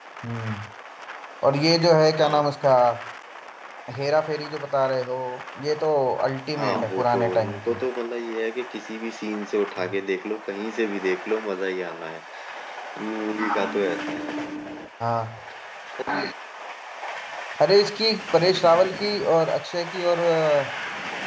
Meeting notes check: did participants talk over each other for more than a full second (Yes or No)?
Yes